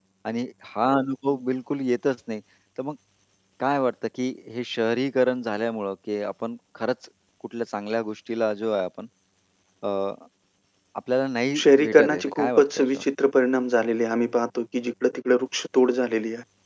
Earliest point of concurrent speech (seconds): 11.6 s

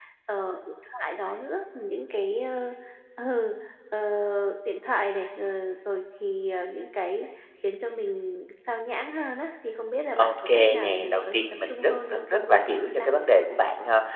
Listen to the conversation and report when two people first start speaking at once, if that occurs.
10.1 s

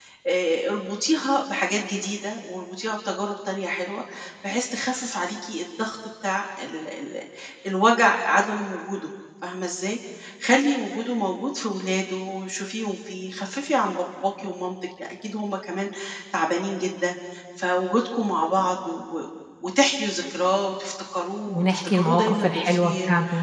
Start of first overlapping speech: 21.5 s

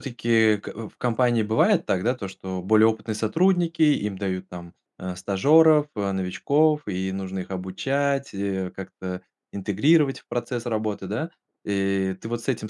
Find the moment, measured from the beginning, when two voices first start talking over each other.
none

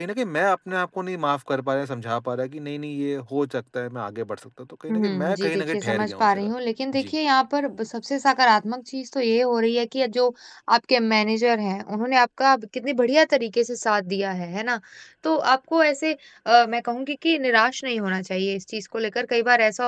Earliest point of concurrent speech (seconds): 4.9 s

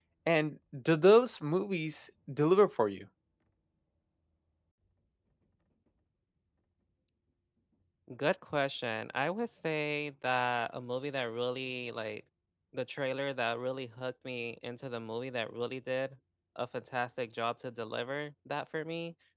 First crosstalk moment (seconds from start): none

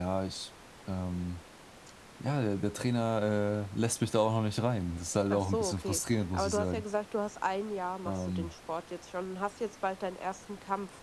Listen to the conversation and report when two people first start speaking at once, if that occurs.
5.3 s

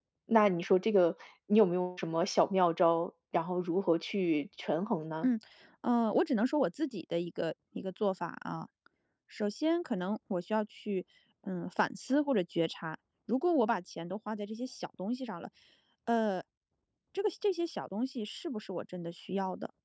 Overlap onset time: none

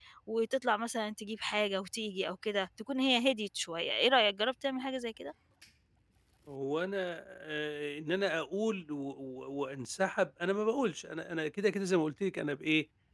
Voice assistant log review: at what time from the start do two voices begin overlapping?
none

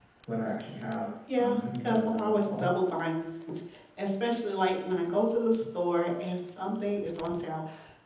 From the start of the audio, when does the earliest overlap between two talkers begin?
1.3 s

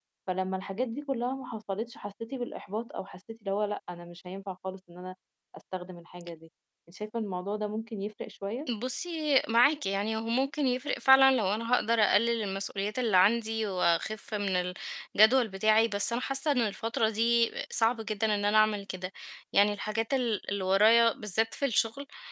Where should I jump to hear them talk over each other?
none

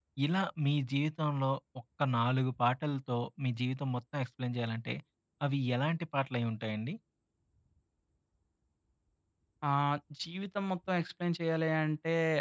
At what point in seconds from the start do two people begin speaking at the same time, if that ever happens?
none

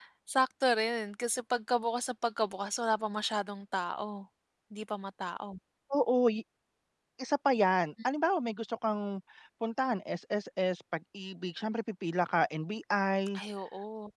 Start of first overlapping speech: none

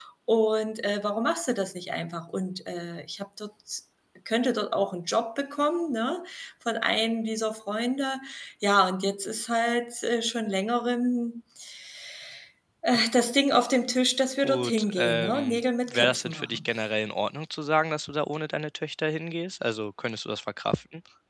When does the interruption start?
14.4 s

